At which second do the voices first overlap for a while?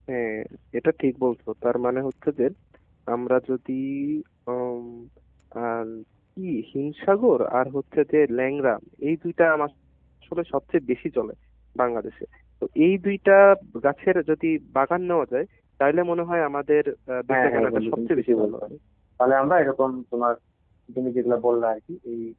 17.3 s

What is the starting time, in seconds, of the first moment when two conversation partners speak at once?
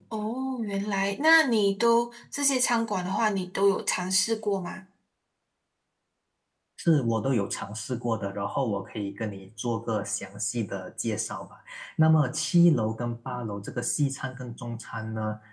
none

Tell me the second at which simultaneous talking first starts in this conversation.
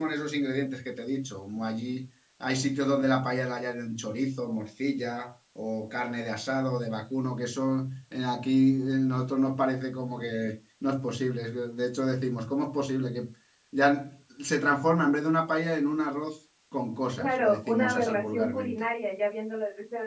17.2 s

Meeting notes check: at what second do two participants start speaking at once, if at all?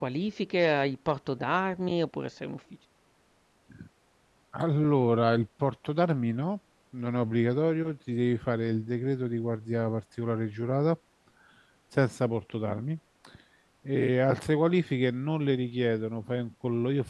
none

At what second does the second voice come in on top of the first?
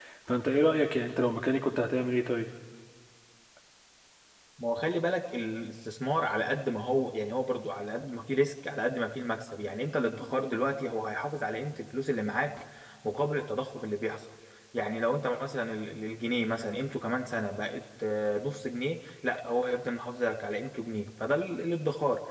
none

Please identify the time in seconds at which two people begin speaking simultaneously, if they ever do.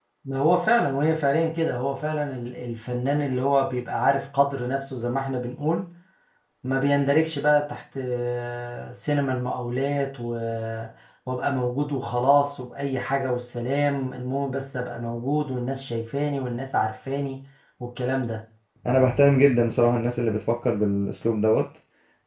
none

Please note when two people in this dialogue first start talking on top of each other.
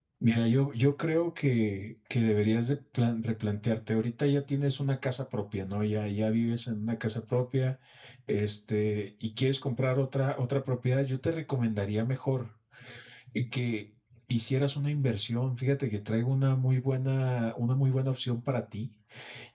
none

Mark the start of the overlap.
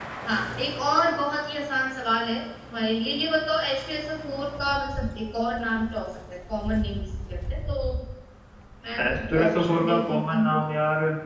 9.0 s

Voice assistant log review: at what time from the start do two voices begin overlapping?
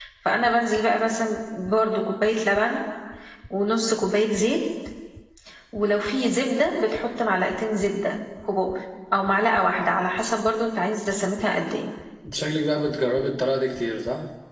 none

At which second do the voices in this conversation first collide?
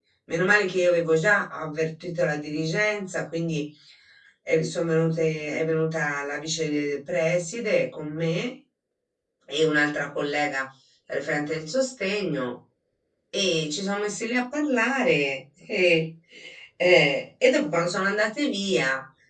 none

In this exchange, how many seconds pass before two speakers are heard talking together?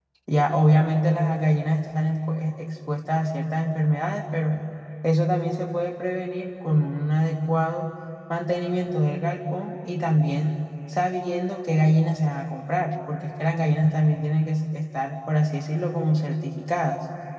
none

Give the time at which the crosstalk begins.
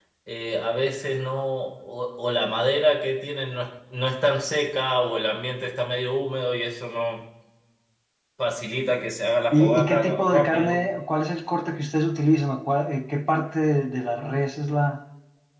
9.5 s

